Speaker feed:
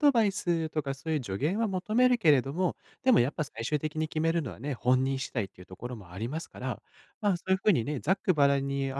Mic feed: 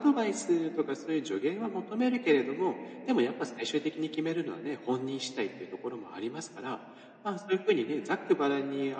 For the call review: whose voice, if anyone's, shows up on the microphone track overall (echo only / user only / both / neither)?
echo only